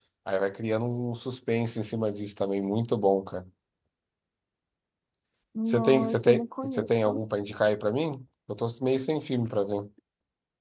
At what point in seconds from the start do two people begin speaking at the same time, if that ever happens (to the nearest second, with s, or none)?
6 s